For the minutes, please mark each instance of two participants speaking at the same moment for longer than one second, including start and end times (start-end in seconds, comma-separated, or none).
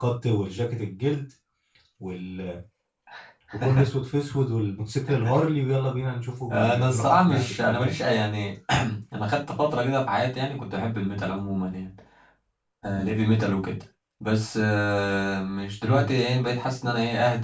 6.5-7.9